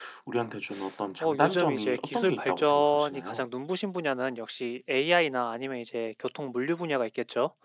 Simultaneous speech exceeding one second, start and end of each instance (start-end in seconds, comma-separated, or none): 1.2-3.5